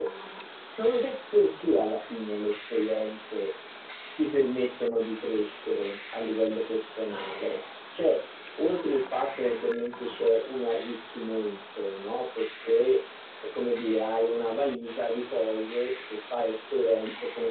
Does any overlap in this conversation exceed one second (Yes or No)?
No